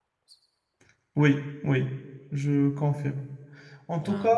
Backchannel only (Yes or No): Yes